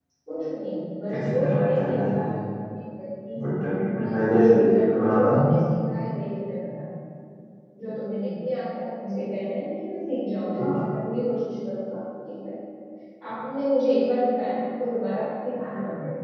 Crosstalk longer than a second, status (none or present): present